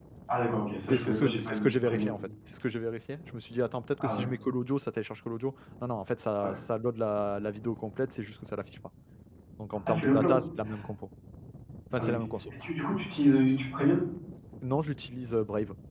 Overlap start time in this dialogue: 0.9 s

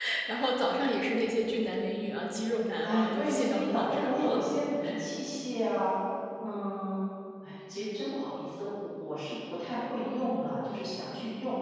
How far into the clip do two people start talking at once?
2.8 s

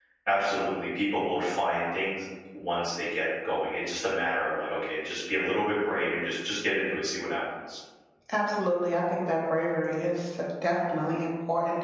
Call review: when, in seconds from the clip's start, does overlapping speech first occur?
none

